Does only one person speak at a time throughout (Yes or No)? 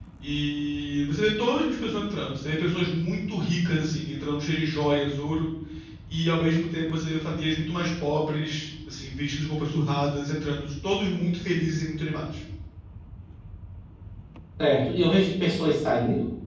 Yes